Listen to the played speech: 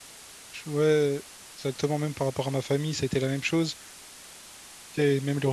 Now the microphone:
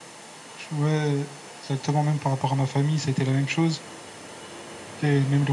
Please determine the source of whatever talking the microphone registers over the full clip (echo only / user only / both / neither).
echo only